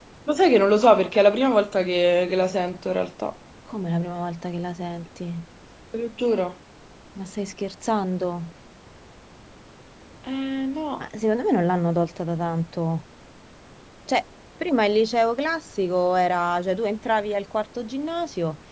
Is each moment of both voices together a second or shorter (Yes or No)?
Yes